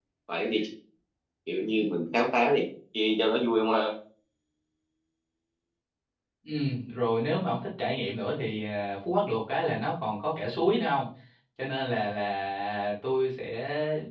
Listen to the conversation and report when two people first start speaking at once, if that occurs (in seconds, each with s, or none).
none